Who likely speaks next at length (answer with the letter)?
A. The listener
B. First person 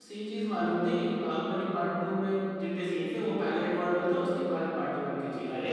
A